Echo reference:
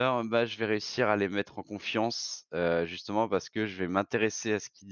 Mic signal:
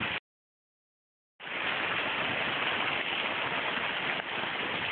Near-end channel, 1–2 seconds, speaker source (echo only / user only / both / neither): neither